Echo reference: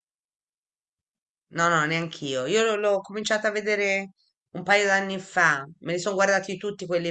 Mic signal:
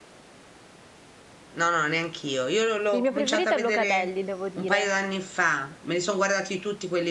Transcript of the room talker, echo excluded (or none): Il mio preferito è Locatelli, devo dire.